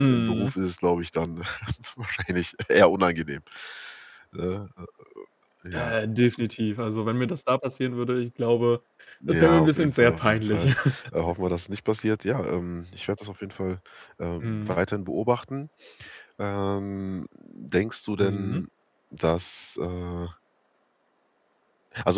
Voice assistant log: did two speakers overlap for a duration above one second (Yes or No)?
Yes